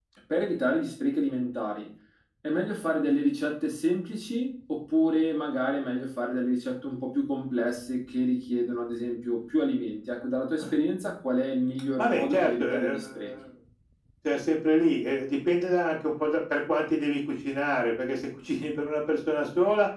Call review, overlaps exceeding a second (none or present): present